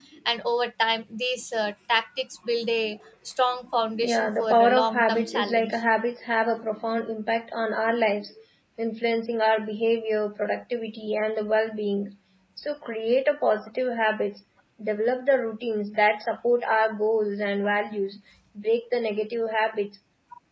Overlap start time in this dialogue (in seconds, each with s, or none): 4.0 s